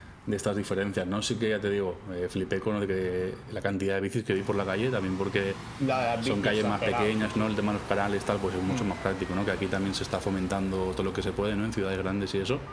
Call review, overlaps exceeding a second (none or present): present